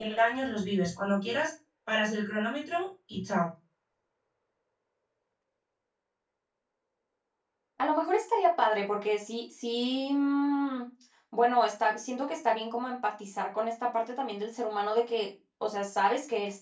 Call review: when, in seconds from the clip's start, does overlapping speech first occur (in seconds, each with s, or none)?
none